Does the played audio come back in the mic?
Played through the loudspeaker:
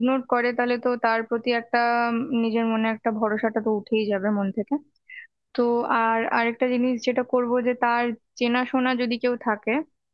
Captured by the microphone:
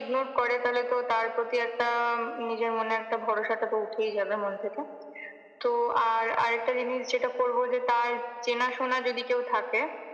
Yes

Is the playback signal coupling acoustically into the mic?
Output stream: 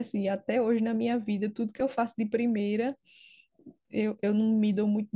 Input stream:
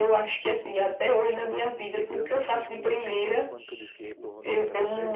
Yes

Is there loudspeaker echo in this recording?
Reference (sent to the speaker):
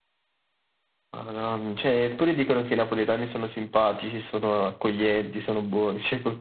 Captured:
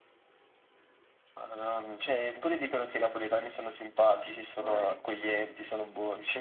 Yes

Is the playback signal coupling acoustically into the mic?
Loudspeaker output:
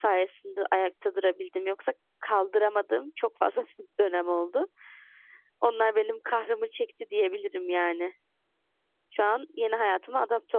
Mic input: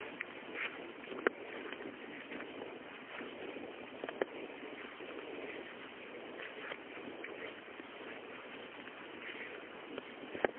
No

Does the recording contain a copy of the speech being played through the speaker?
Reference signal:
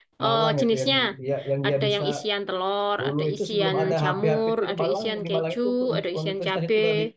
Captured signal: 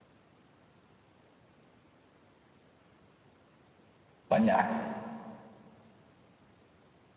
No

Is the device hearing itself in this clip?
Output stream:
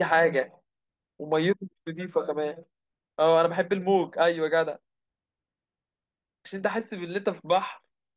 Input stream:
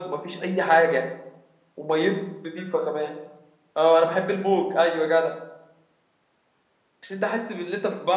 Yes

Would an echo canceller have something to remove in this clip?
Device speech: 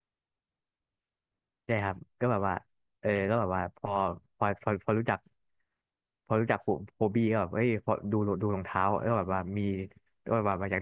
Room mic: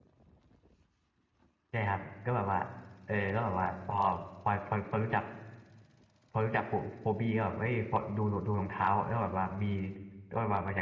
Yes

